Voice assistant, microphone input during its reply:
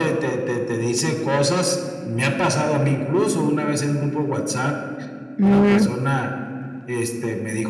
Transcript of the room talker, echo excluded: Ujú.

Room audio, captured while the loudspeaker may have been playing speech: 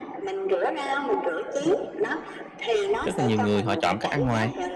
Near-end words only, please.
rất là nhiều người họ chọn cách ăn ngoài.

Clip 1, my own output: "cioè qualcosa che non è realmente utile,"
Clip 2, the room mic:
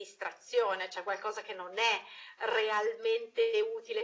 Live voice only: none

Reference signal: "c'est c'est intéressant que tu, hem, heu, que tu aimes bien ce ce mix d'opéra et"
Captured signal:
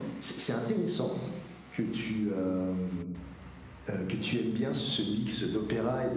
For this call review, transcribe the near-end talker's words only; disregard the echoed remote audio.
none

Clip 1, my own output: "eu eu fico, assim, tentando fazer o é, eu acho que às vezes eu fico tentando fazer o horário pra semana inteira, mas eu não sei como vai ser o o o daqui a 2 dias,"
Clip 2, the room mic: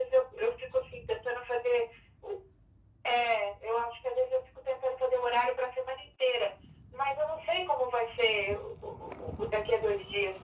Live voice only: none

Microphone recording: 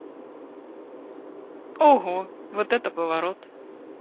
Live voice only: Ого, вот это поворот!

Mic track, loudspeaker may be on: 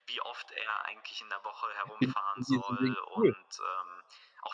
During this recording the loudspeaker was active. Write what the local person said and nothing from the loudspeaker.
in in diesem Ding. Cool.

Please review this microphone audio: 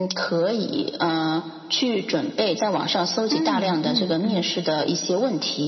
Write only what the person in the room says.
嗯，嗯，嗯。

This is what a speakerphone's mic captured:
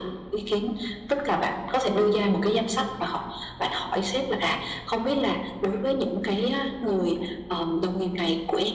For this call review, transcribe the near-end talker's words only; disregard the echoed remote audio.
none

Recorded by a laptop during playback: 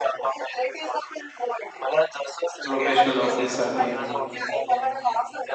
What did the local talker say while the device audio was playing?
प्रोफेशनल ऑफिससाठी.

